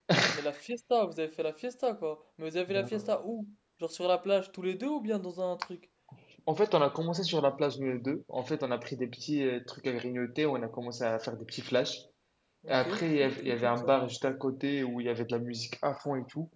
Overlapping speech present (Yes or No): Yes